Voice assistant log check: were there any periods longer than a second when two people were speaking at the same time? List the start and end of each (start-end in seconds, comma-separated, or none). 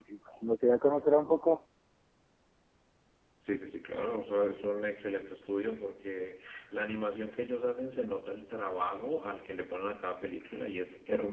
none